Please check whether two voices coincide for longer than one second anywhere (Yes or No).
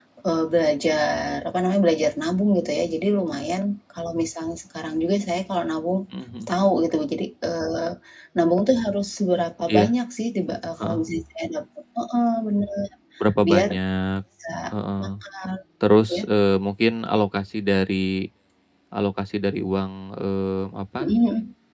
No